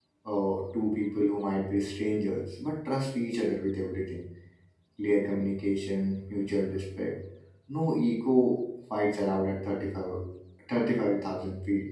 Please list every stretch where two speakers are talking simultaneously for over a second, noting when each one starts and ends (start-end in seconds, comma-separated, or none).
none